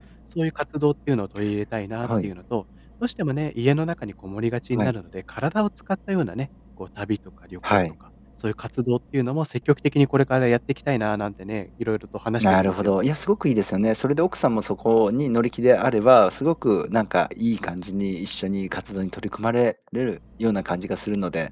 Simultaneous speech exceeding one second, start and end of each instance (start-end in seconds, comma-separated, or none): none